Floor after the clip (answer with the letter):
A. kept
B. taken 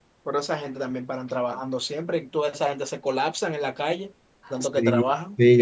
B